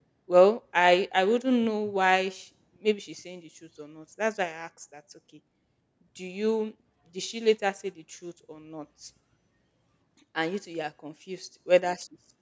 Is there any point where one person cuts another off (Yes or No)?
No